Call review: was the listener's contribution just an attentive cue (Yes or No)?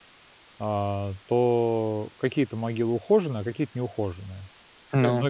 Yes